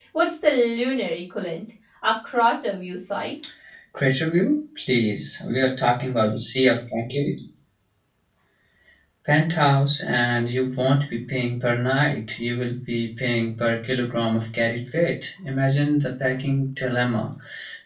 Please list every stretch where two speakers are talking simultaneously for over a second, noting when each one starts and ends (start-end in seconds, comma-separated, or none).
none